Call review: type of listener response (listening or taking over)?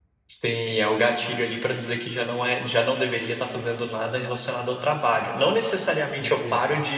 listening